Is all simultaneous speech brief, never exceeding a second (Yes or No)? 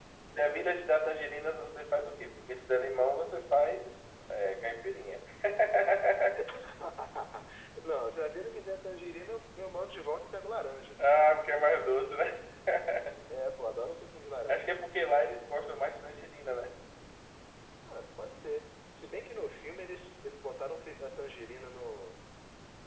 Yes